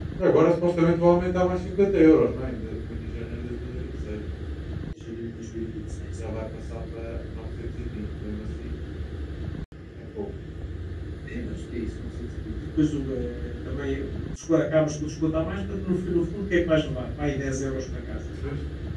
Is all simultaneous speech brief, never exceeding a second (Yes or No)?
Yes